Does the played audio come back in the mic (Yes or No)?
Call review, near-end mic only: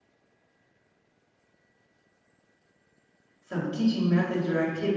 No